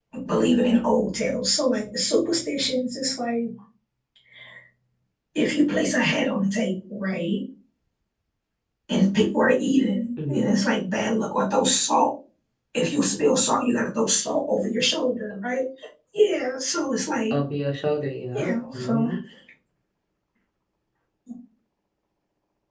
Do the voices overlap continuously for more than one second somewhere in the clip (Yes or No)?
No